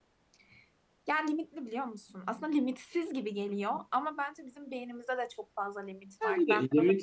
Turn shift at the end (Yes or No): Yes